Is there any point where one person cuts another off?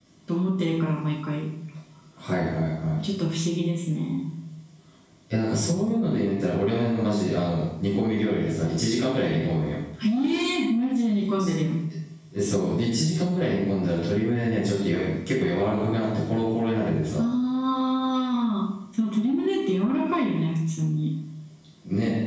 No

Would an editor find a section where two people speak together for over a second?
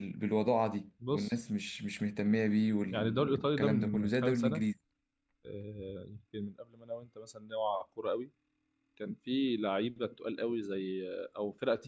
Yes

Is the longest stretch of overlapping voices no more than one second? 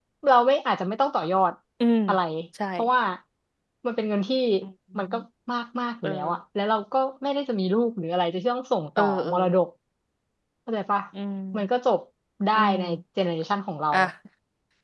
Yes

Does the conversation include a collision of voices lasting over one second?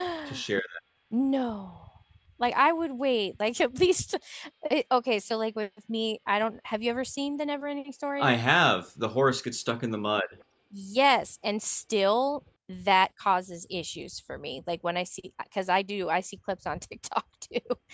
No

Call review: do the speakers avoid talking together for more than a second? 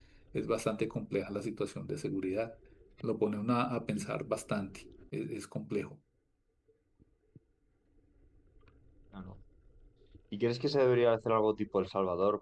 Yes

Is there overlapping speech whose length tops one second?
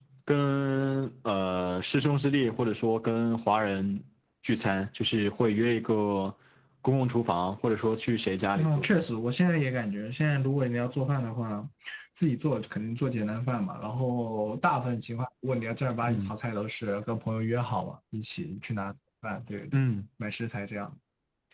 No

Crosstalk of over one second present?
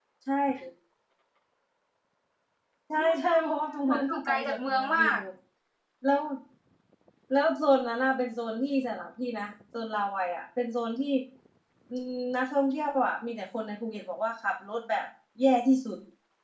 Yes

